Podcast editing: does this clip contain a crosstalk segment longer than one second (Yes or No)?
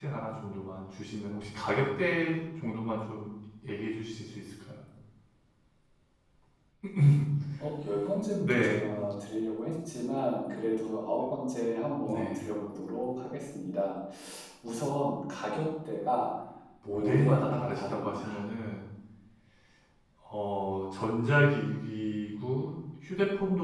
Yes